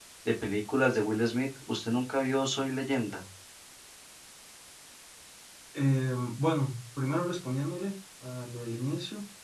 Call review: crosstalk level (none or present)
none